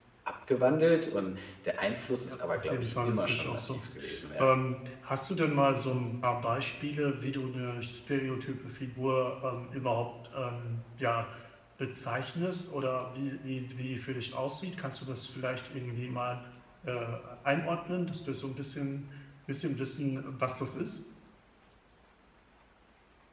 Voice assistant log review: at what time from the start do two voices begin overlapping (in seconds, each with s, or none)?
2.2 s